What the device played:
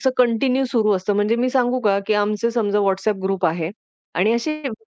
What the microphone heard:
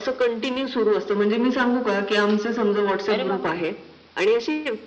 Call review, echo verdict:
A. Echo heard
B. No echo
A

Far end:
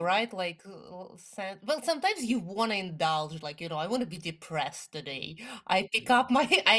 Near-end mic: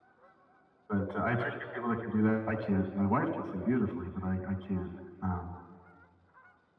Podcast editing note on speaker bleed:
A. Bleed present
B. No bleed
B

